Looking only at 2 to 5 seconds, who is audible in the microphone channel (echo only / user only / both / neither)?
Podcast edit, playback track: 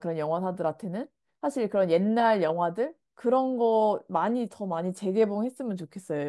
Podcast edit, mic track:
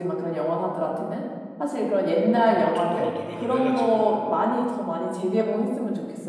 both